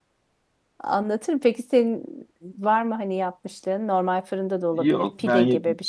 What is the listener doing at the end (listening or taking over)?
taking over